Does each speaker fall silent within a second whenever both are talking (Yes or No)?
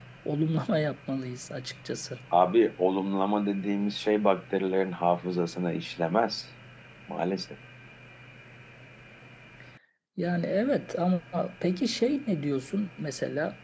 Yes